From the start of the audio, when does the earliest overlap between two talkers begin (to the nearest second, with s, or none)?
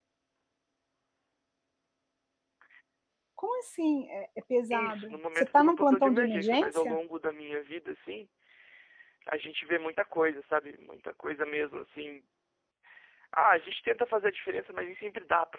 5 s